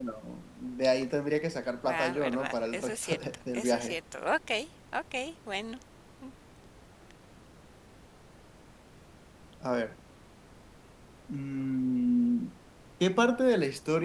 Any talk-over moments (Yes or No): Yes